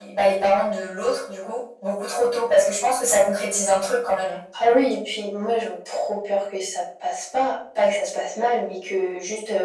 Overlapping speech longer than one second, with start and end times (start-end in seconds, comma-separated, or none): none